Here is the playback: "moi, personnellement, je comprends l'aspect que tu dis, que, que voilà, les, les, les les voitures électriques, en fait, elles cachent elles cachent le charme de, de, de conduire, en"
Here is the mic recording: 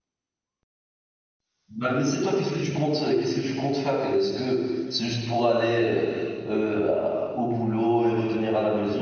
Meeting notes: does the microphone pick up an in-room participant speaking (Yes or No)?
Yes